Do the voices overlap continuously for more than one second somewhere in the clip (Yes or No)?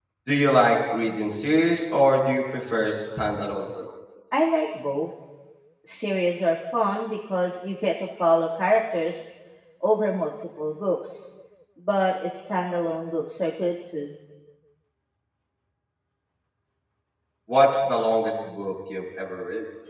No